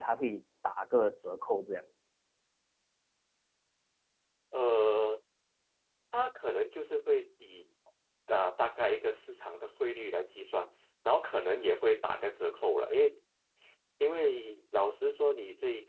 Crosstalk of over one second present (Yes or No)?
No